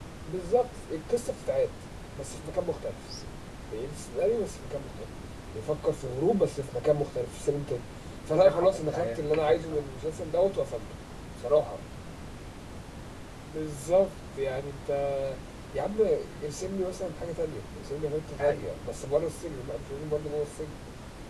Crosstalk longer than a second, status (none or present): present